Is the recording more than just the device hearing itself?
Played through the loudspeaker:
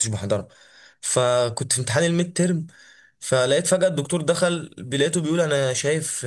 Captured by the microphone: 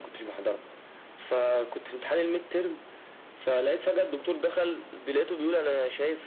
No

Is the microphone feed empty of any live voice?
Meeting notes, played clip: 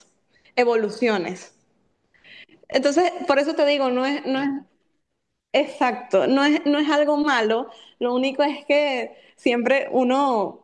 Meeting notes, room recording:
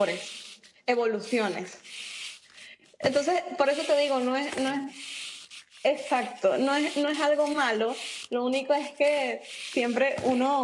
Yes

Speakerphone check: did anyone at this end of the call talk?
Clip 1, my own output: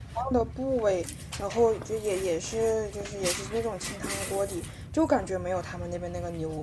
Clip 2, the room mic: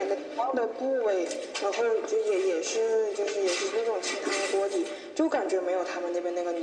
No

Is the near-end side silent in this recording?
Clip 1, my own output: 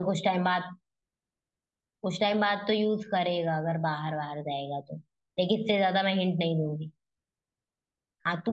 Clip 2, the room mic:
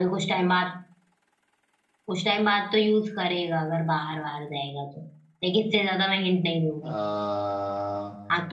No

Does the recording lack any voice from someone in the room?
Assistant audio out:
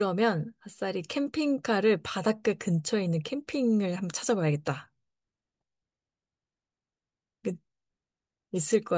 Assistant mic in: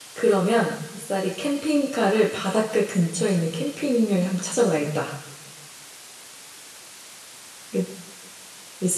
Yes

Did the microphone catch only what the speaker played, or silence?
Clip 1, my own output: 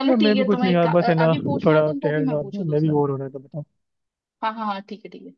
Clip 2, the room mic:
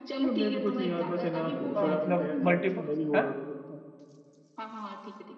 No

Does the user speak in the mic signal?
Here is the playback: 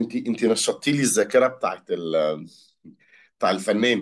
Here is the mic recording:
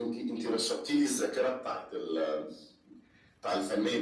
No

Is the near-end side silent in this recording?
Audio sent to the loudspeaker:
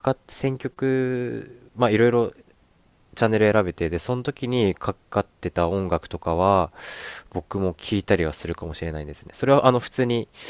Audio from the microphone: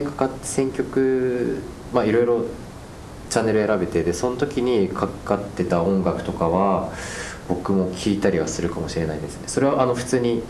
Yes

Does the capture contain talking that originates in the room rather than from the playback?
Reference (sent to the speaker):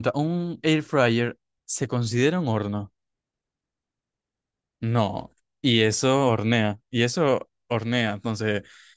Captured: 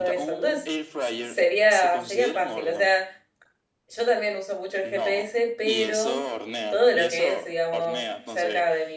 Yes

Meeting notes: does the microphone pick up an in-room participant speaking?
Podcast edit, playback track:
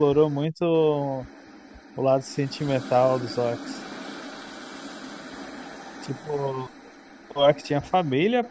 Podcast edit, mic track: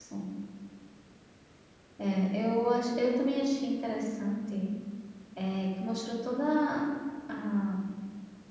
Yes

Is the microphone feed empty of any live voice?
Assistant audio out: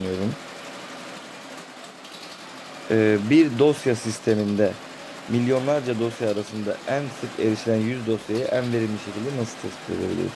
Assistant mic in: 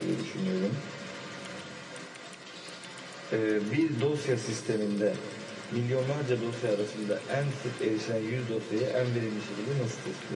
Yes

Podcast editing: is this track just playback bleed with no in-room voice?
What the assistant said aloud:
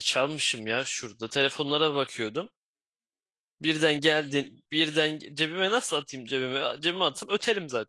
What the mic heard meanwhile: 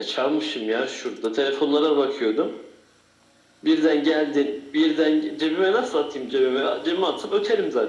Yes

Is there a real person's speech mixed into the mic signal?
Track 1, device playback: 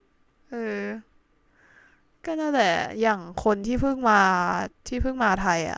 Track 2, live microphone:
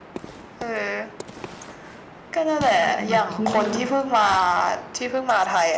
Yes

